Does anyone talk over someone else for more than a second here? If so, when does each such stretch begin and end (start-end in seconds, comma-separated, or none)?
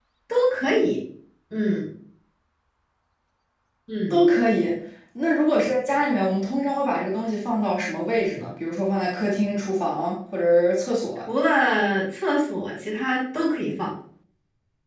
none